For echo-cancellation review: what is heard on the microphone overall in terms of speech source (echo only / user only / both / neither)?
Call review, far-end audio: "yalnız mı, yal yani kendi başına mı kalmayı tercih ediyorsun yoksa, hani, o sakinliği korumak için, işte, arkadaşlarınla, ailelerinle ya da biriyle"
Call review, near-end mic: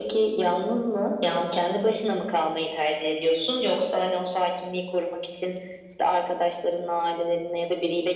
echo only